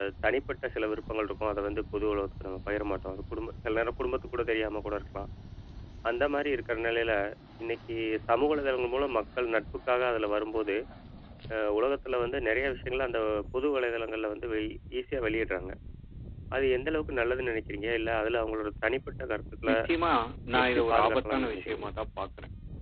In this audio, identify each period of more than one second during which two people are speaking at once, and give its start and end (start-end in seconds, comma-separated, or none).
20.6-21.9